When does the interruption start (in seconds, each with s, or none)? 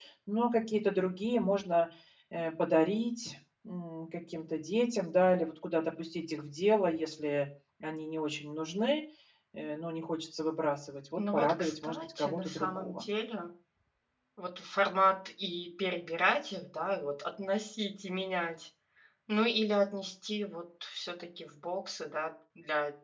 11.2 s